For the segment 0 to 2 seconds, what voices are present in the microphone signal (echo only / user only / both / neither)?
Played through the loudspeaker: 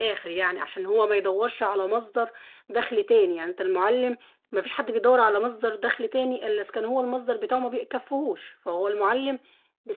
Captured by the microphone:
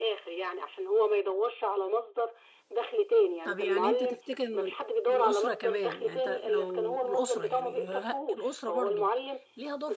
echo only